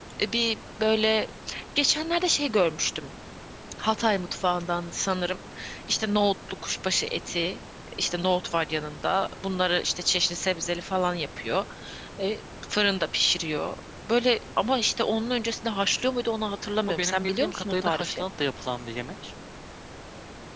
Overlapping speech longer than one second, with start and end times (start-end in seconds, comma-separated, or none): 16.9-18.2